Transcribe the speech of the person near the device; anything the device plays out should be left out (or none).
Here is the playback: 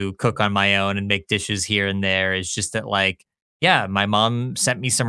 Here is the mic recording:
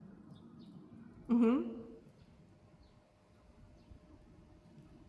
Mhm.